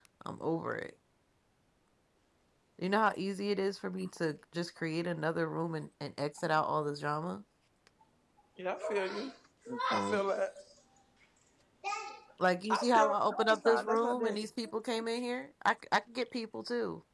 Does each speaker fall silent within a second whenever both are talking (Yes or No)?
No